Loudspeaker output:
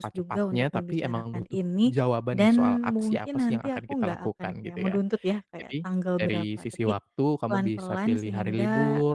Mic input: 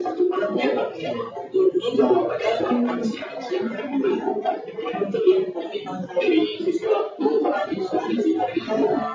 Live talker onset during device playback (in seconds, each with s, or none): none